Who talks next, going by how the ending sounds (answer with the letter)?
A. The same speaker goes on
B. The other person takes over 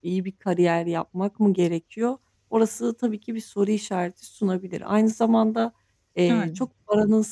A